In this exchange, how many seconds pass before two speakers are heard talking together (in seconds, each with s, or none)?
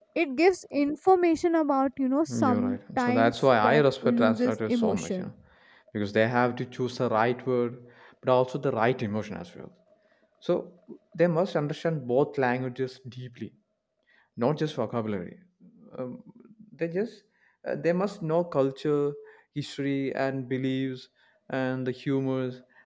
2.3 s